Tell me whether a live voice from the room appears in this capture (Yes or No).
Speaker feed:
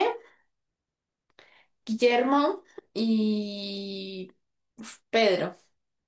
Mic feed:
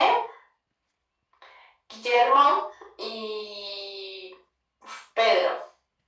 No